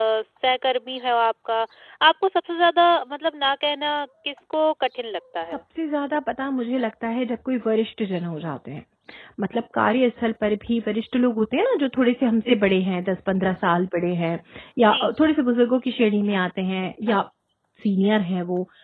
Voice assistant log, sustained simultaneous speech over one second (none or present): none